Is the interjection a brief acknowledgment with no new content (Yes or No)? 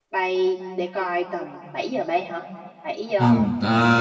No